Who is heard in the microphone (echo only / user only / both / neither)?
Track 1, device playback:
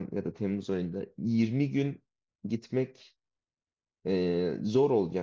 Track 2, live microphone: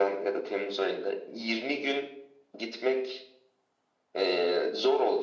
echo only